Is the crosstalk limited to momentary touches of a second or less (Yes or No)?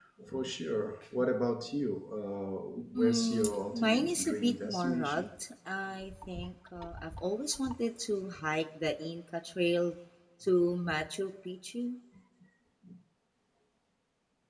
No